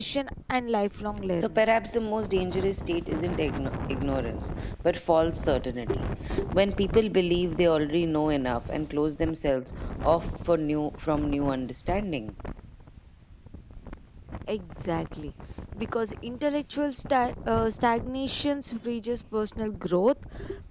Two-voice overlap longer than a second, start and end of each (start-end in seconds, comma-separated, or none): none